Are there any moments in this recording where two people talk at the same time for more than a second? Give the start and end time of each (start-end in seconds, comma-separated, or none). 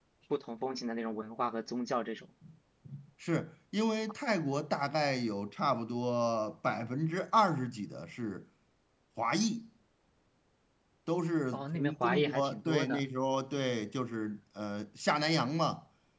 11.5-13.0